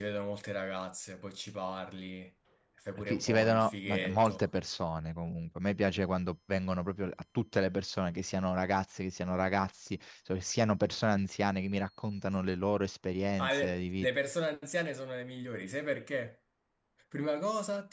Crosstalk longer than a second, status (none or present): present